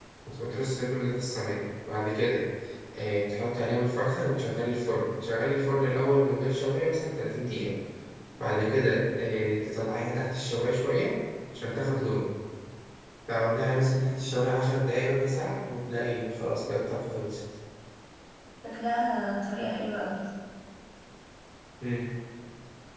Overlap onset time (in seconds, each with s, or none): none